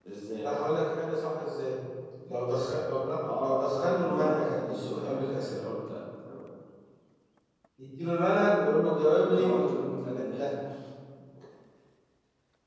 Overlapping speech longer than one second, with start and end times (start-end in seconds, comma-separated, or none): 3.4-5.7, 9.0-10.5